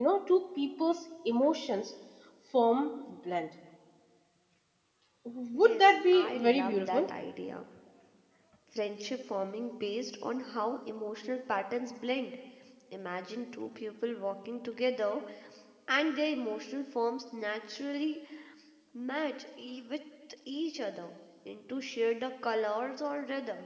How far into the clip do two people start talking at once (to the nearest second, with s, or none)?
6 s